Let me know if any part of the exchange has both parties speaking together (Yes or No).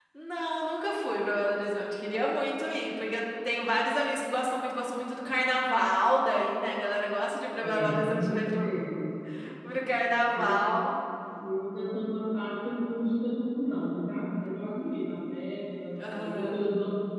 Yes